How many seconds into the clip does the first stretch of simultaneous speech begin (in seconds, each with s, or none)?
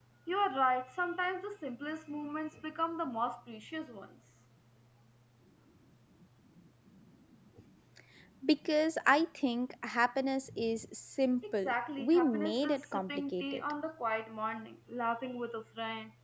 11.4 s